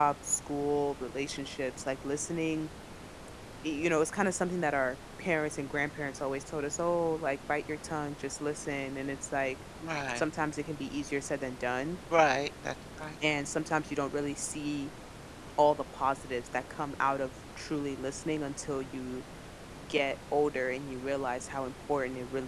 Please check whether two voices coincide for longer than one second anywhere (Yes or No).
No